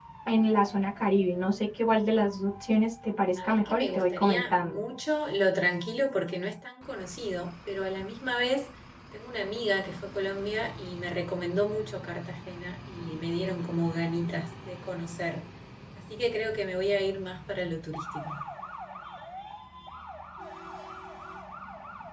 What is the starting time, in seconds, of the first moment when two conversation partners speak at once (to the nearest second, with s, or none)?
3 s